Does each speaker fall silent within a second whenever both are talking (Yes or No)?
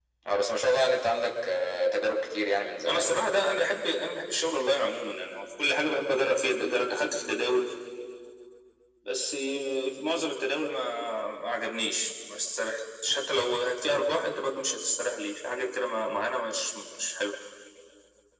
Yes